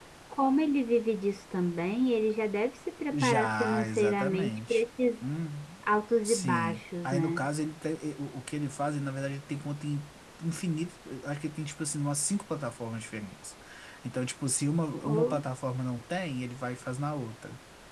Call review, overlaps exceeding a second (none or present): present